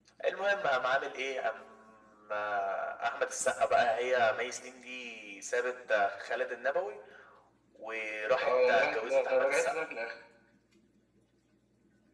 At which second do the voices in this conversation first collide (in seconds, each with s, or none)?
8.4 s